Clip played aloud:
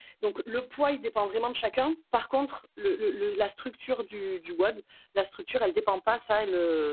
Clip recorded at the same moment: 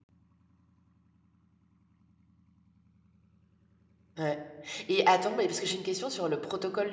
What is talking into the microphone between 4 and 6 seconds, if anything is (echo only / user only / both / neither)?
user only